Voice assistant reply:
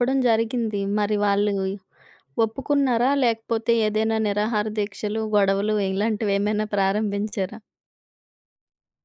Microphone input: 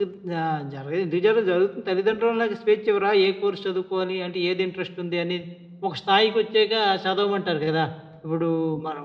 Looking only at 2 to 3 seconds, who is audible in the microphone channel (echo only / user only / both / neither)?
user only